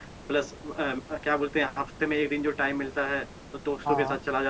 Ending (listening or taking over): listening